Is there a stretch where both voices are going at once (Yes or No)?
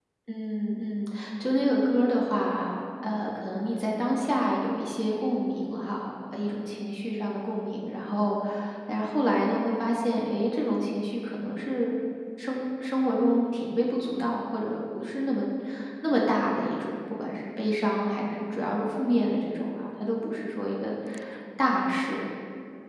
No